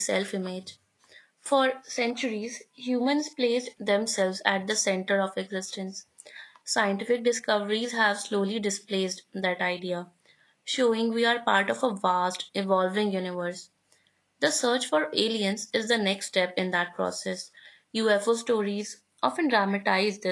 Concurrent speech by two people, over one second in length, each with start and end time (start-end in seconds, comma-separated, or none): none